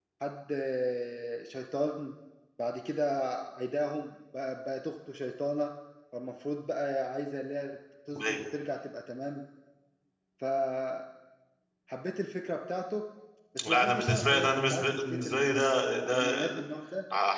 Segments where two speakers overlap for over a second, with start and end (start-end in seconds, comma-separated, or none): 13.6-15.7